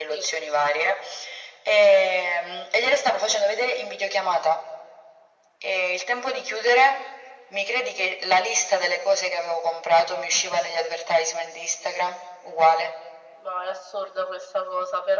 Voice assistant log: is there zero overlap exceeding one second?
Yes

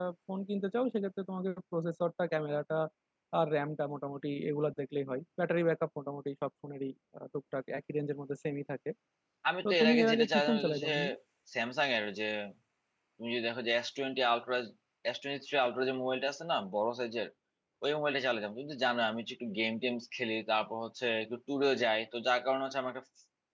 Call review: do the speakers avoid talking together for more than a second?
No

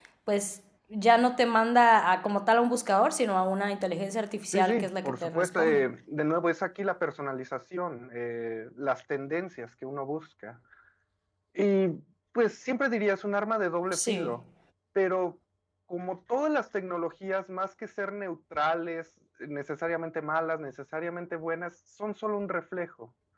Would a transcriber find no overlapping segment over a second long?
No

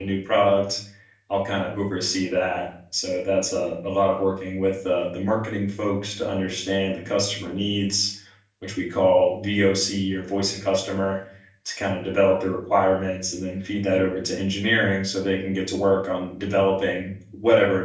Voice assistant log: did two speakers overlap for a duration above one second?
No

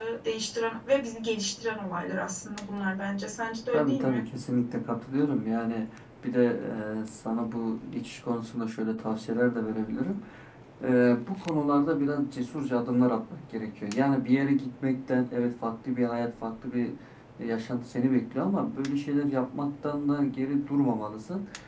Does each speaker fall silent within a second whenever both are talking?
Yes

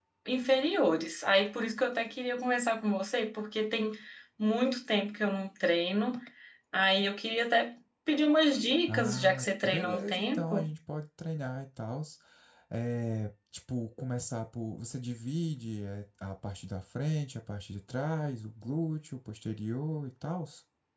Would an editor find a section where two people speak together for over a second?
Yes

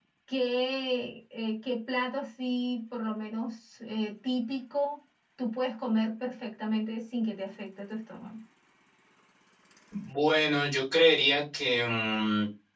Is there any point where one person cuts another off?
No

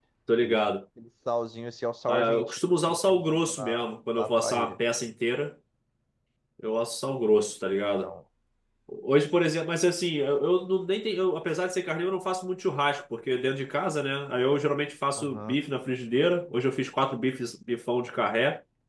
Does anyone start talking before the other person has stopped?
Yes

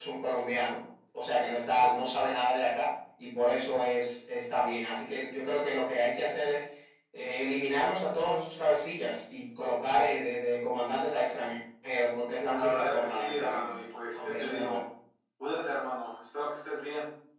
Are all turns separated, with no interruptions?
No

